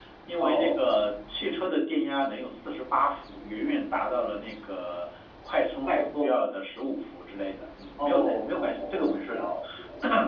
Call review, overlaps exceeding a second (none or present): present